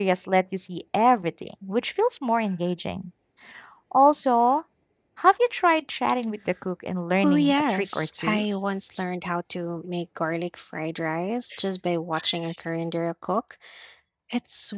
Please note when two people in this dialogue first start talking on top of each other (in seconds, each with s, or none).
7.2 s